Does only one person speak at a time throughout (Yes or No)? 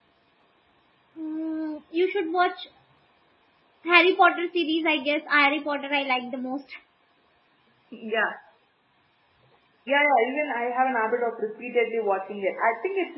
Yes